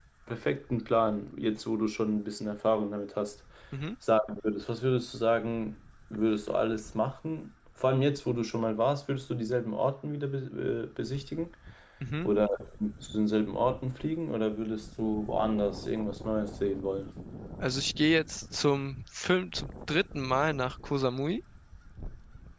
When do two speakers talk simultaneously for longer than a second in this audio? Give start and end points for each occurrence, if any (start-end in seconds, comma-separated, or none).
none